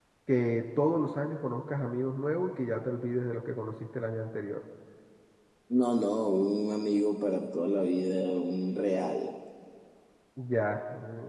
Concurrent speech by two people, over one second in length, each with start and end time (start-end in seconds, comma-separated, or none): none